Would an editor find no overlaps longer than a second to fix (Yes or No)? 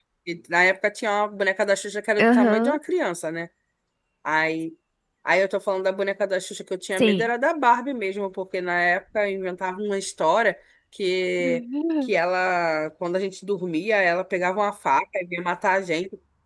Yes